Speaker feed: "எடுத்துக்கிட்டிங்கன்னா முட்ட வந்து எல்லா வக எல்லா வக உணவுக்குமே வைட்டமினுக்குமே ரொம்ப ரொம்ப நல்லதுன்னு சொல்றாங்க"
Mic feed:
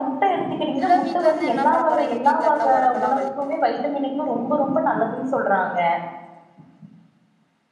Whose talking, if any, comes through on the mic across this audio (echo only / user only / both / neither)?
both